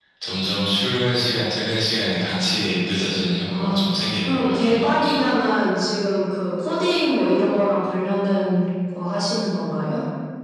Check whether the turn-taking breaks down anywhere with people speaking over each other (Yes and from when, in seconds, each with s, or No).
Yes, from 3.5 s